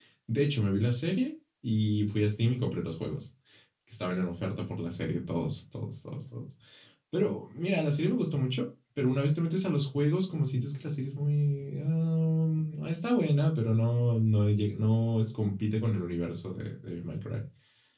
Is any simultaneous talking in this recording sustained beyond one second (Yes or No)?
No